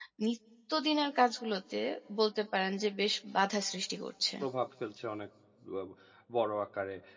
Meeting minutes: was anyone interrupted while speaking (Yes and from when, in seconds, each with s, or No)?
No